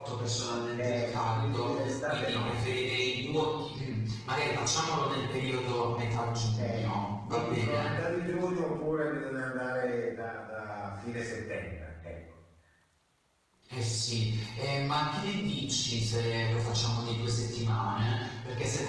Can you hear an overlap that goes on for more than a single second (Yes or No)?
Yes